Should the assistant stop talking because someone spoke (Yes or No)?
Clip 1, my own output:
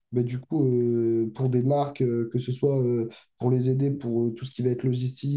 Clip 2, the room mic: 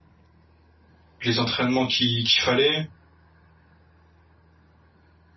Yes